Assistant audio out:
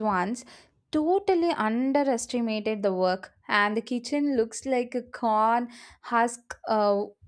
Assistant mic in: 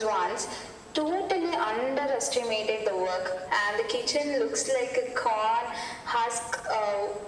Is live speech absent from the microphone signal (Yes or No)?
Yes